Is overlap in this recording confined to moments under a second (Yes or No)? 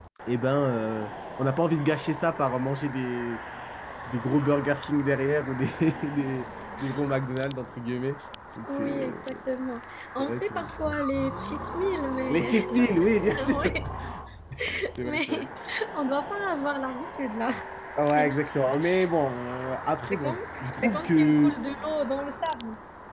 No